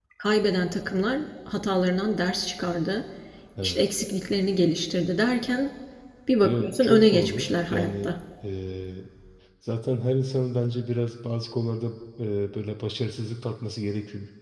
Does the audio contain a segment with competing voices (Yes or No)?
Yes